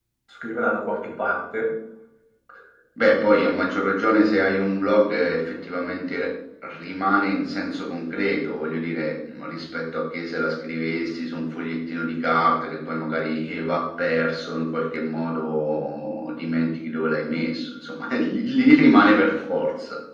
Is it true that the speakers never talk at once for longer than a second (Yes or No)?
Yes